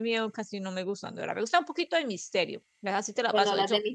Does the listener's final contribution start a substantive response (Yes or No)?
Yes